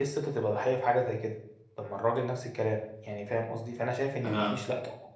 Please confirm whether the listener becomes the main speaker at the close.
No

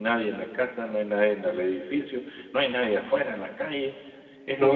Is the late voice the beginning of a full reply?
Yes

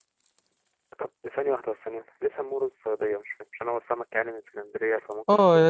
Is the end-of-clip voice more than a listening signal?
Yes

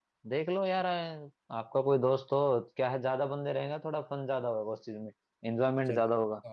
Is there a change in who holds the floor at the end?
Yes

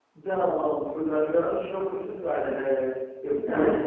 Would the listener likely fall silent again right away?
Yes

